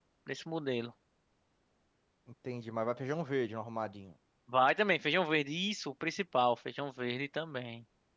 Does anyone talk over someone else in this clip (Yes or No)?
No